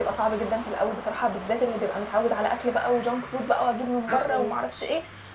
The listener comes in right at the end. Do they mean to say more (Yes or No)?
No